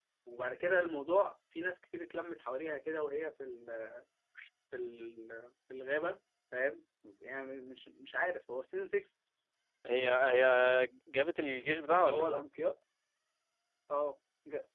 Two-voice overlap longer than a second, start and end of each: none

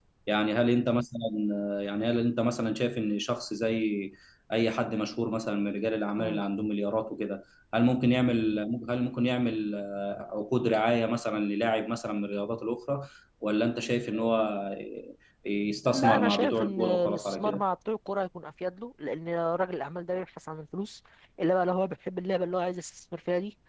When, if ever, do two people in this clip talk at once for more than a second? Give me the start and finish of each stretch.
15.8-17.6

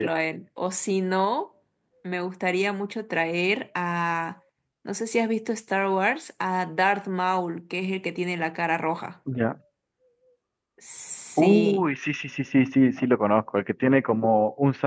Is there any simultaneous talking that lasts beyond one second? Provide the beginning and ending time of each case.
none

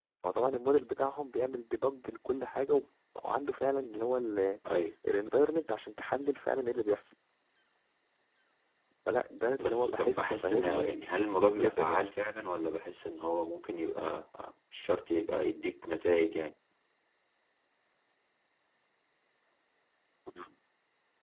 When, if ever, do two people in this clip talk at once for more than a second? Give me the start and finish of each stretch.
9.6-11.0

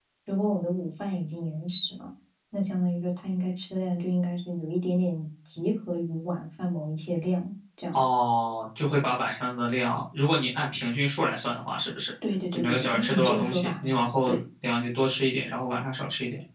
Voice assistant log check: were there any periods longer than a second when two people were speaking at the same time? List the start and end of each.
12.5-14.4

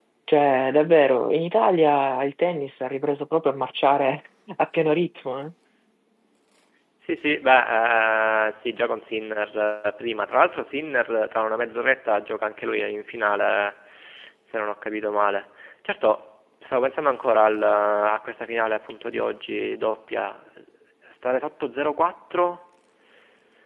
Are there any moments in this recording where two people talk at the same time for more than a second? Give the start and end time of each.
none

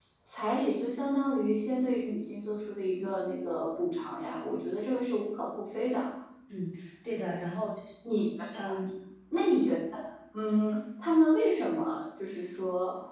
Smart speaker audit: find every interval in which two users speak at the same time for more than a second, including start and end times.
none

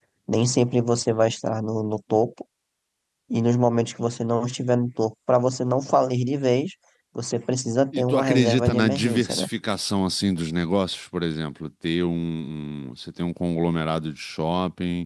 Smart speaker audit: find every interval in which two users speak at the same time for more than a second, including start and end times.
7.9-9.5

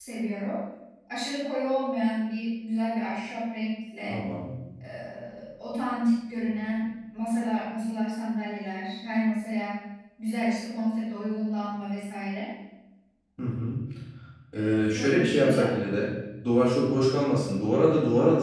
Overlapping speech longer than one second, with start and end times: 14.6-15.8

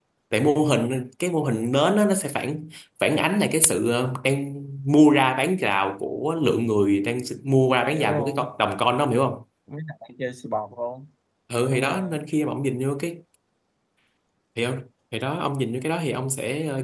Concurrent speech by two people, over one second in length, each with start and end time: none

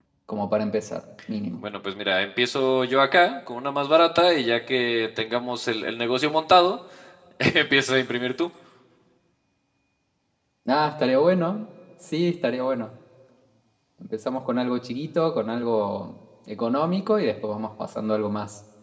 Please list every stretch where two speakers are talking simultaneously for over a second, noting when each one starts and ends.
none

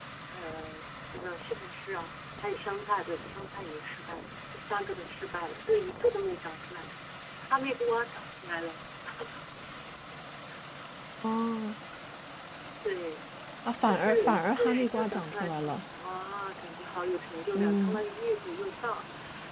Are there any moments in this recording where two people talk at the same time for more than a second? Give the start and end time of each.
13.9-15.8

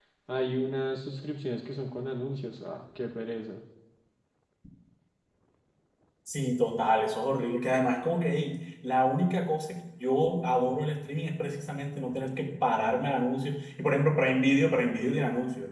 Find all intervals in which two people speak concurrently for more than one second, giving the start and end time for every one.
none

